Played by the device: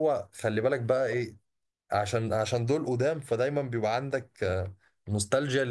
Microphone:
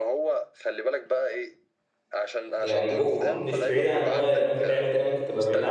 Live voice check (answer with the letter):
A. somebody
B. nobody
A